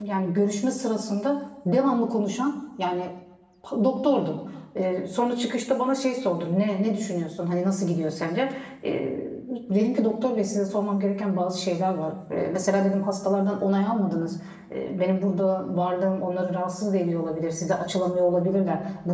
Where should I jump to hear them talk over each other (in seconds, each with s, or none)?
none